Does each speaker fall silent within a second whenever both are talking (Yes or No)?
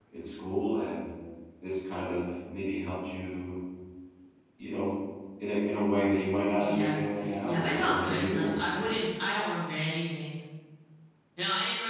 No